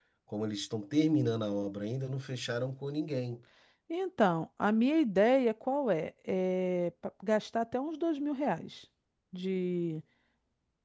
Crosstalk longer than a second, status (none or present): none